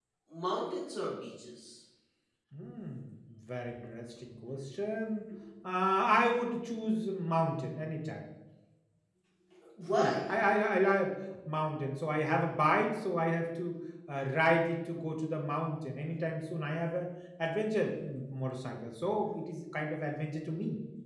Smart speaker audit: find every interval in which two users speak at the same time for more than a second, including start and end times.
none

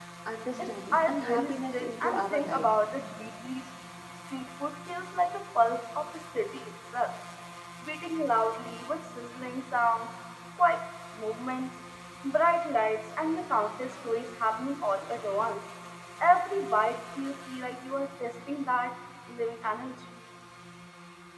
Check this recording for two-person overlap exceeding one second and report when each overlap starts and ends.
0.6-2.7

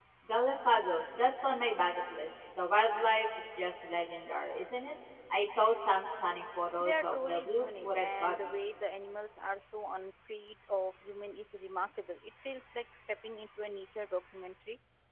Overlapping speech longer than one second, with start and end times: 6.8-8.8

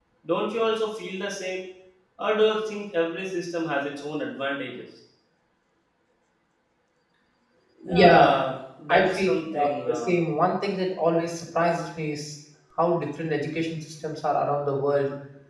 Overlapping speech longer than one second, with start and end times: 8.9-10.2

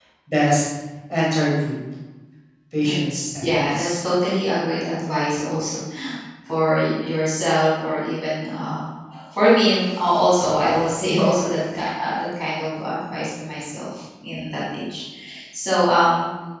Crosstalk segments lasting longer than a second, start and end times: 2.7-4.0

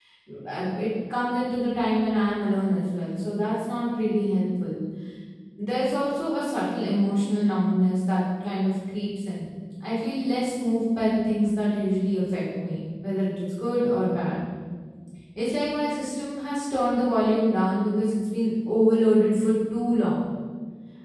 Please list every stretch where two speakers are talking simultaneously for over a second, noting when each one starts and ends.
none

